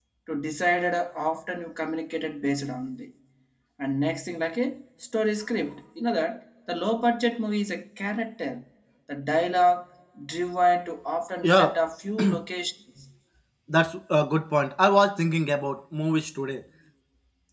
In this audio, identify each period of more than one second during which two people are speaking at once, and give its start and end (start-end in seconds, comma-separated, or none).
none